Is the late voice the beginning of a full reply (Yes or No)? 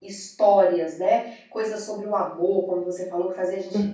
No